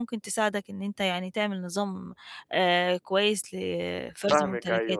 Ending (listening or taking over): taking over